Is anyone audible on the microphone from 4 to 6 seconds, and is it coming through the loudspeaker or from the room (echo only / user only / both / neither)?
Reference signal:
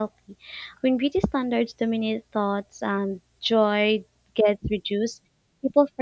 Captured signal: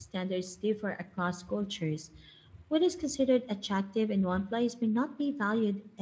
user only